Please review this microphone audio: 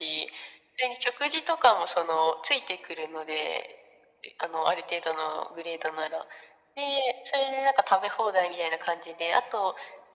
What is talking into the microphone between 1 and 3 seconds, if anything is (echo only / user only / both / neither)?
echo only